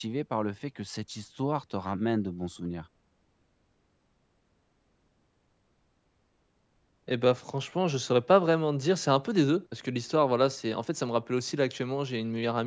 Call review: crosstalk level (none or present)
none